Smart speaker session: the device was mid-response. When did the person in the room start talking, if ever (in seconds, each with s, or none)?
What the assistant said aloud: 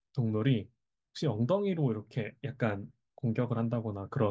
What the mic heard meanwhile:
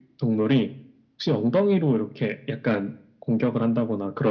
none